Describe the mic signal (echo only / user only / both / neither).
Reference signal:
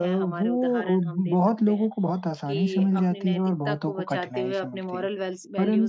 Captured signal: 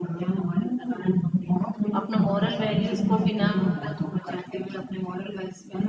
both